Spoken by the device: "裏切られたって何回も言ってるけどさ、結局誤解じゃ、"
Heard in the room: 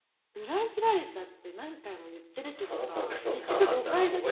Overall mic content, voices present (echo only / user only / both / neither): both